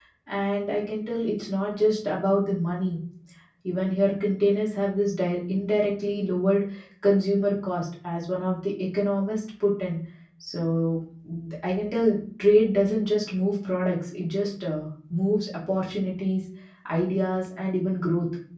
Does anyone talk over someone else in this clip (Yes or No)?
No